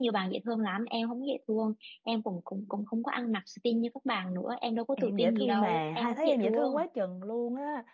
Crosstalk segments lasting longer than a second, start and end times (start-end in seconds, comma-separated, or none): 5.0-6.8